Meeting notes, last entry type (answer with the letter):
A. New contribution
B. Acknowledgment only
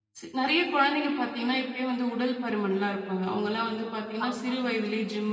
B